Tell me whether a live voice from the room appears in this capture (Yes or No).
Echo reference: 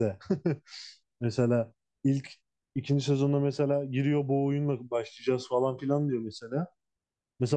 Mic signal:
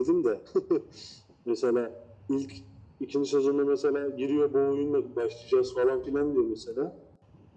No